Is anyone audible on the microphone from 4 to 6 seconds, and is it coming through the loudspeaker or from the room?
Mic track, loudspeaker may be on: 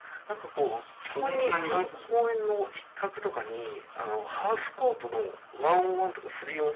echo only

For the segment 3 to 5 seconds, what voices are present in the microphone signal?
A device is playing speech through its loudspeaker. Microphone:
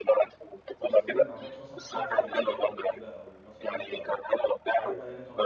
both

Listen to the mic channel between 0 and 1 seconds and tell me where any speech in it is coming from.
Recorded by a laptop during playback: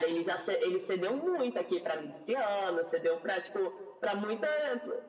echo only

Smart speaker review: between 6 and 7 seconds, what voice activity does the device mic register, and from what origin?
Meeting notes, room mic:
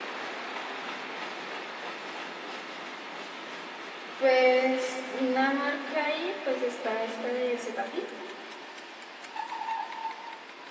user only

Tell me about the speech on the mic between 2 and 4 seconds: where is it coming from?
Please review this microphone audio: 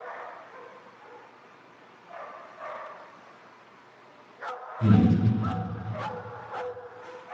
neither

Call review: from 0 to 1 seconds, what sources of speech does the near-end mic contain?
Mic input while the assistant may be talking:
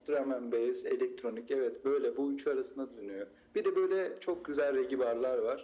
echo only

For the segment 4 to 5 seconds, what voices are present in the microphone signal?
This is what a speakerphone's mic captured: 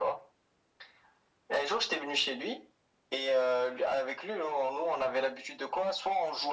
echo only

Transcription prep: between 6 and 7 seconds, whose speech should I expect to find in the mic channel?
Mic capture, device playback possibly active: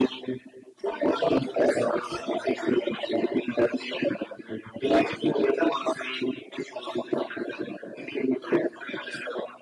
echo only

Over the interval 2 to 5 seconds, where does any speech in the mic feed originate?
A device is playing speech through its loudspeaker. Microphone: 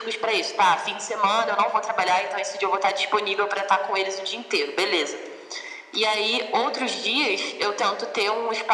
echo only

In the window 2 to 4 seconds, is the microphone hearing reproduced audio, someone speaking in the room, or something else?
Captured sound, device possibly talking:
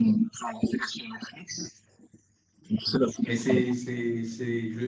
both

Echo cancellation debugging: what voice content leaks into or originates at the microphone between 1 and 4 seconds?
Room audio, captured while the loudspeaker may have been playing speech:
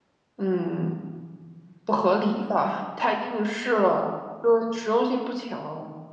user only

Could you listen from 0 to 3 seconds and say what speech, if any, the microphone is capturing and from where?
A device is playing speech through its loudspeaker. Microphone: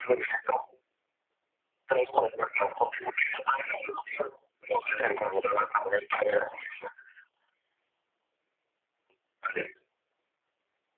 echo only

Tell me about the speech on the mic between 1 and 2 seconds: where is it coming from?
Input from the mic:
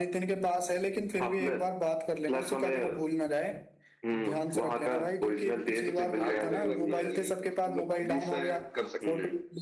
echo only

